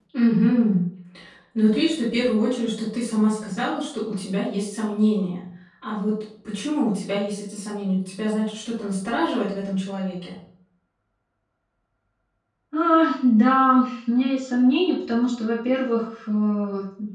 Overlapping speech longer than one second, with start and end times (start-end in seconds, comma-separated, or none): none